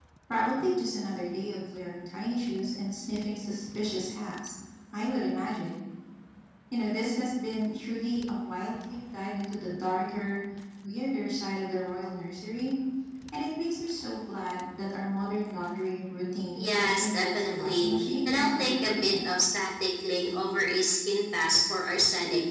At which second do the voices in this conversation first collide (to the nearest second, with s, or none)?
17 s